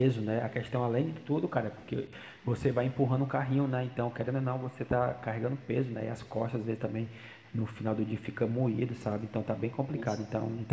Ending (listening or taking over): listening